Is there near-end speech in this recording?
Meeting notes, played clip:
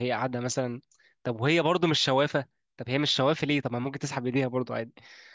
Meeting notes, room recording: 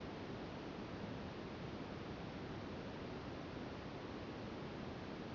No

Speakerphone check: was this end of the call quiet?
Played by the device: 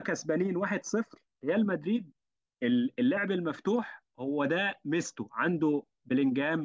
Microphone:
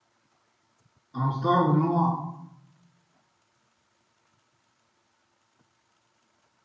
No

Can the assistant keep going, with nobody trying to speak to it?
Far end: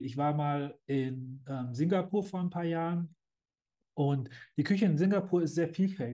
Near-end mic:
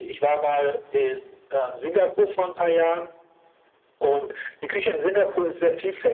Yes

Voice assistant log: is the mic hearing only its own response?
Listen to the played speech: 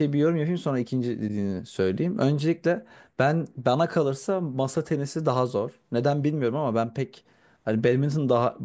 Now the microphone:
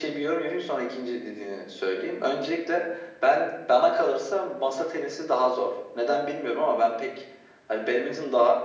Yes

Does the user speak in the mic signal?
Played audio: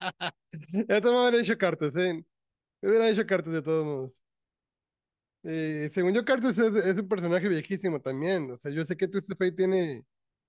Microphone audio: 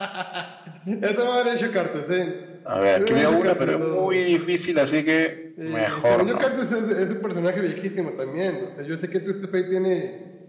Yes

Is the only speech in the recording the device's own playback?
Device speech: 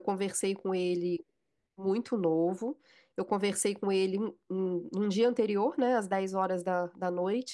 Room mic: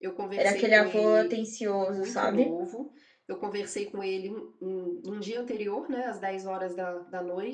No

